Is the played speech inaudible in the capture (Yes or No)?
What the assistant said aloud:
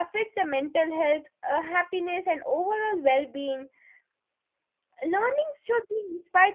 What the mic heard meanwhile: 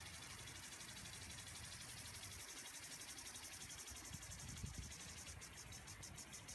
Yes